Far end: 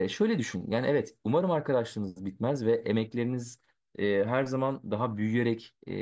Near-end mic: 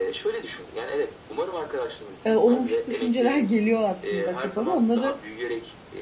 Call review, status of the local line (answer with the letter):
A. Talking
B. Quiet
A